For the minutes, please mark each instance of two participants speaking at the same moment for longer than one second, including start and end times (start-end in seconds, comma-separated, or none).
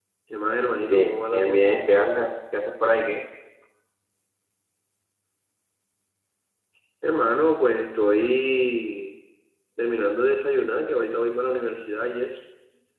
0.9-2.3